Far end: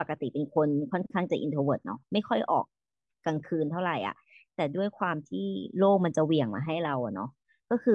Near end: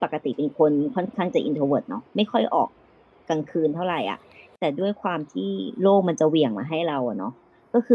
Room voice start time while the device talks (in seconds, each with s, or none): none